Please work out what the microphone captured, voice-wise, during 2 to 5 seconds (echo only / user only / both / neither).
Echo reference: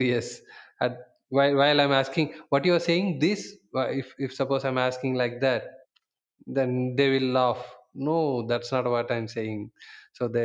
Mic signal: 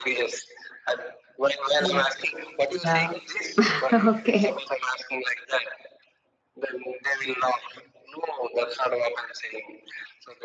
both